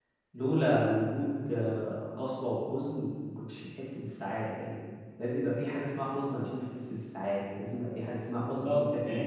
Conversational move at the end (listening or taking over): taking over